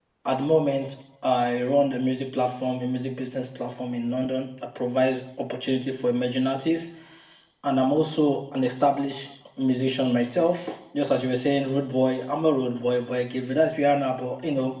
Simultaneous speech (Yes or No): No